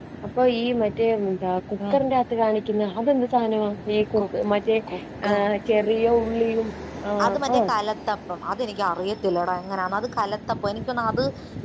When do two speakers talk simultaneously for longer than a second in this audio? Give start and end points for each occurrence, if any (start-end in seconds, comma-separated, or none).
none